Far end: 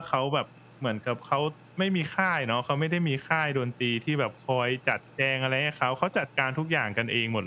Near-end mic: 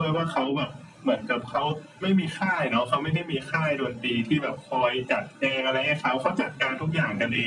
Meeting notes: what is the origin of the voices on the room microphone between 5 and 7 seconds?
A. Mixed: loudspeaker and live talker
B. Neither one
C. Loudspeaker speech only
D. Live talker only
C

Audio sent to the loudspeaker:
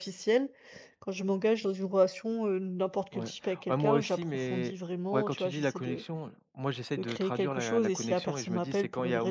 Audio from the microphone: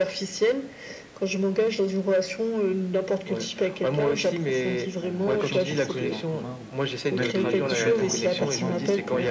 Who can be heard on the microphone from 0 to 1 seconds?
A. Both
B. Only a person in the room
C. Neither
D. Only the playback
D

